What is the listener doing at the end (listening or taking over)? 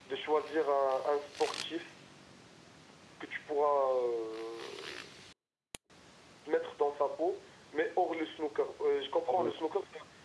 listening